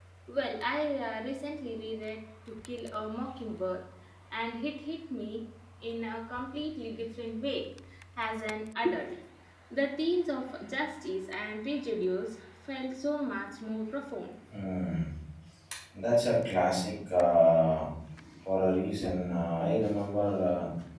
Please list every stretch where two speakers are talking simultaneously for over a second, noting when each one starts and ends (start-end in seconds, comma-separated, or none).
none